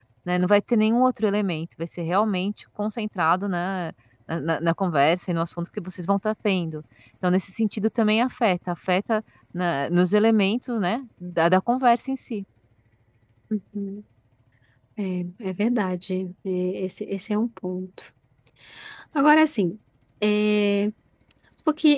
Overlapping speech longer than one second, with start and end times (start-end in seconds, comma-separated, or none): none